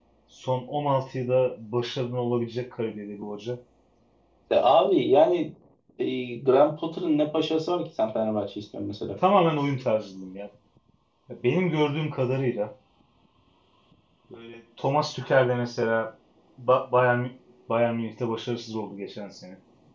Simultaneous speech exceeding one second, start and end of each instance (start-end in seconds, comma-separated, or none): none